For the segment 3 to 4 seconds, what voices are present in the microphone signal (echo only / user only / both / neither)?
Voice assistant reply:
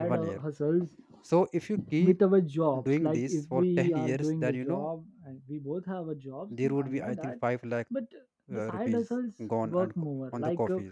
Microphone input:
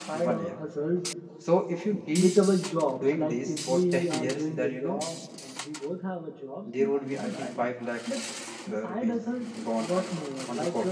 echo only